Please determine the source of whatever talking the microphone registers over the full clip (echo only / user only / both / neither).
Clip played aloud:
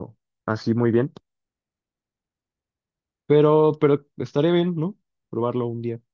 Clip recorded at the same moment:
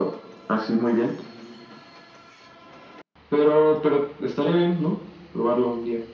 echo only